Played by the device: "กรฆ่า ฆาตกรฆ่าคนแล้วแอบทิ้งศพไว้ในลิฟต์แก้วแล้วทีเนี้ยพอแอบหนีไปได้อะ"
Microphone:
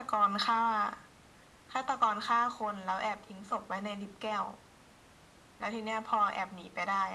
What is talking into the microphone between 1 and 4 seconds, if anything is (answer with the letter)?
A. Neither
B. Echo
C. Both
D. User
B